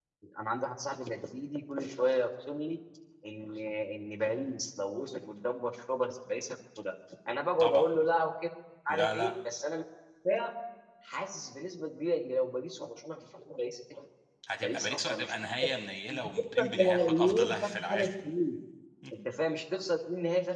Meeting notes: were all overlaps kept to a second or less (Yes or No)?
No